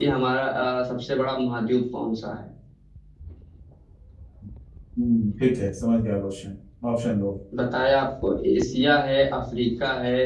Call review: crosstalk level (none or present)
none